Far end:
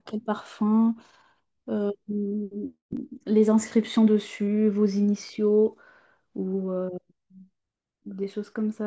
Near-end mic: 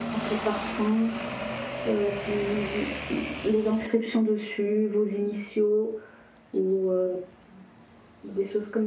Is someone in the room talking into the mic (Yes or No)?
No